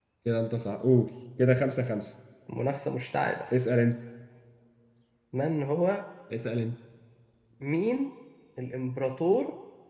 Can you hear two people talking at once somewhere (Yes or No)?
No